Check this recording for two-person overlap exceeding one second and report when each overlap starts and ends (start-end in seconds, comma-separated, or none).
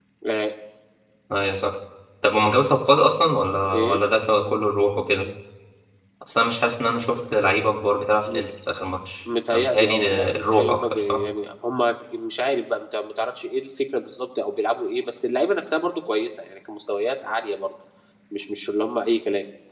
9.5-11.2